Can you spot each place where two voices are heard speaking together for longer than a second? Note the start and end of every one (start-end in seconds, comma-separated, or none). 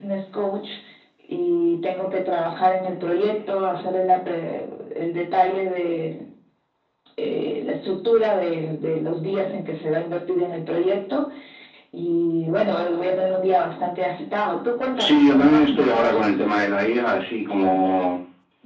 15.0-16.3